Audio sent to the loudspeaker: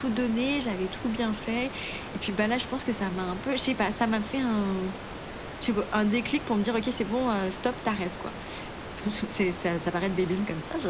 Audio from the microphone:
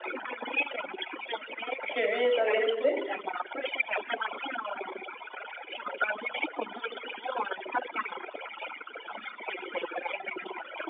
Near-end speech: present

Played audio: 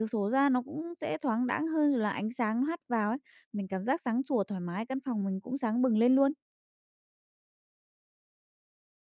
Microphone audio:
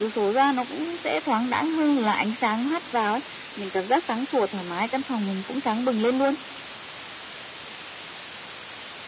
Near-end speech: none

